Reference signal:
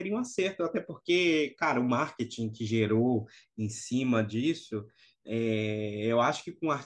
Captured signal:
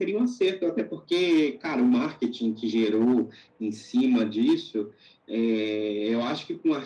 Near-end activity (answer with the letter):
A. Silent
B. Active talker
A